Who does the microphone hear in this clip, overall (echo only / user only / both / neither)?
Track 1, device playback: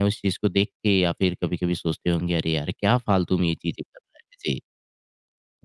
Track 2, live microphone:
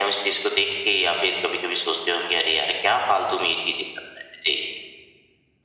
echo only